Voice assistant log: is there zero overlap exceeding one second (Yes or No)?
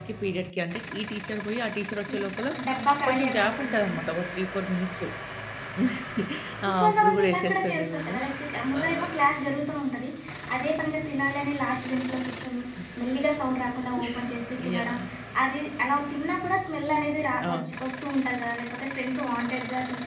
No